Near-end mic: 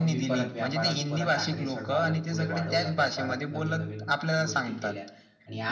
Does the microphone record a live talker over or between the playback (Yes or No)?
Yes